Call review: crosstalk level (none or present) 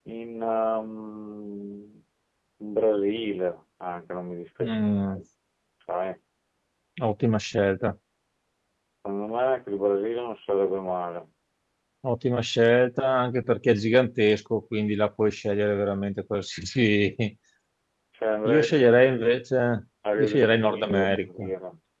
present